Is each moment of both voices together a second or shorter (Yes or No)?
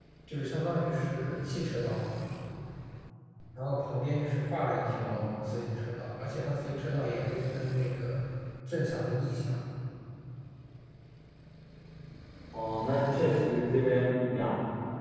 Yes